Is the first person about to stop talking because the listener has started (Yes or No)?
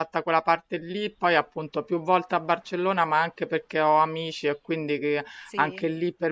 No